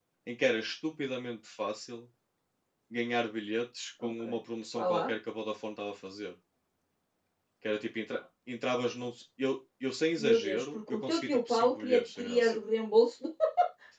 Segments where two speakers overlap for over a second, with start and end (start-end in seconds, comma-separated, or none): 10.2-12.6